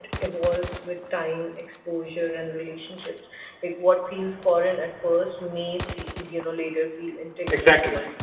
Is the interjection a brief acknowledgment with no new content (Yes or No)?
No